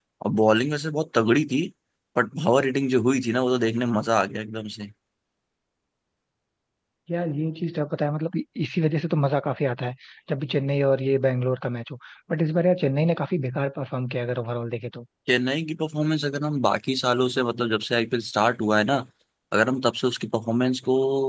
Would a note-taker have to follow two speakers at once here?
No

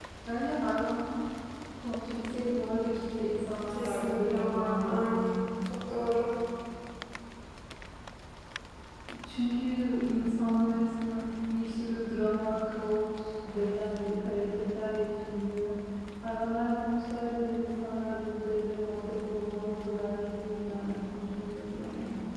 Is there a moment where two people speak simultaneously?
Yes, from 3.7 s

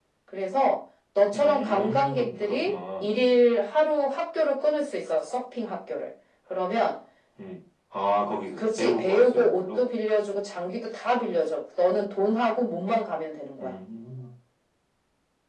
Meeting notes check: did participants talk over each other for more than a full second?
Yes, from 1.3 s

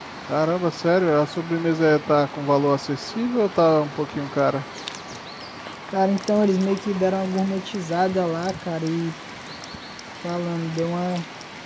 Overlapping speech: No

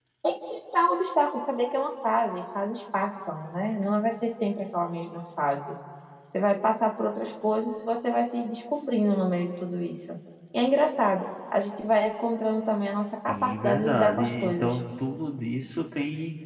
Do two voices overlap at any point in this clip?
Yes, from 13.3 s

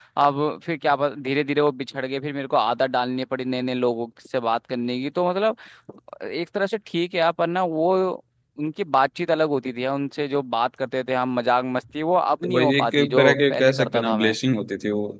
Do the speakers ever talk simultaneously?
Yes, from 12.4 s

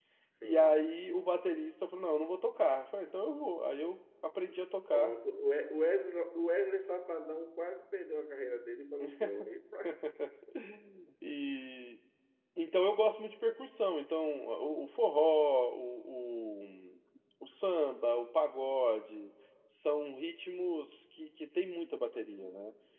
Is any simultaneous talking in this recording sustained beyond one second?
No

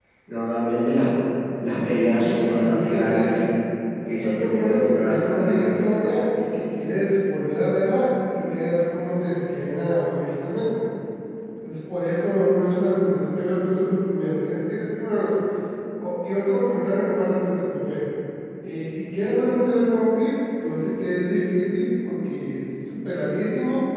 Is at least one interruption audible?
Yes, from 2.2 s

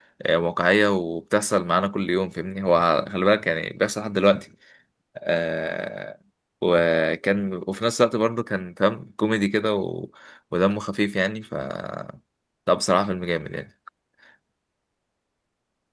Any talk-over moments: No

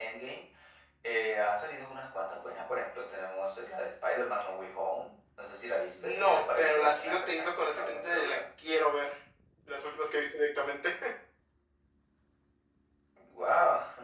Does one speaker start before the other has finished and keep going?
Yes, from 6.0 s

